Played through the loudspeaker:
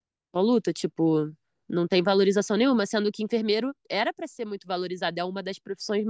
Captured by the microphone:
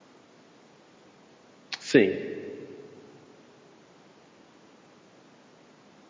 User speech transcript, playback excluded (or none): sim.